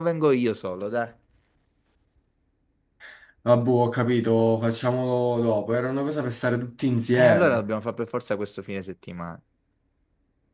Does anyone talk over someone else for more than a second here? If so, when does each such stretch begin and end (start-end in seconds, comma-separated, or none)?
none